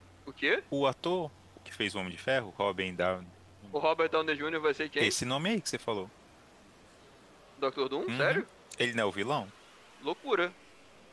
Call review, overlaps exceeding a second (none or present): none